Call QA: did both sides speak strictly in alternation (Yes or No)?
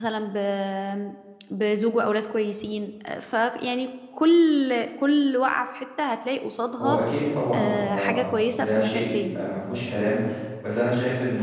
No